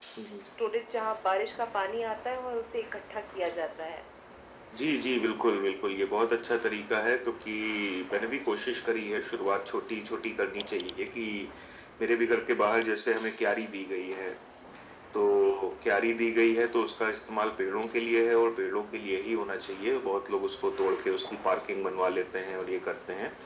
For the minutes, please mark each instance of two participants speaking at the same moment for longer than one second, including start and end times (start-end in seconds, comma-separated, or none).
none